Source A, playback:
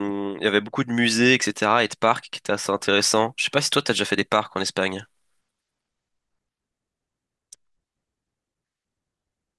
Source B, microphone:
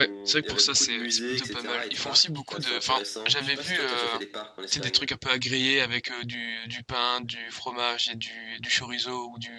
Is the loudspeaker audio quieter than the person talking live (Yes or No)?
Yes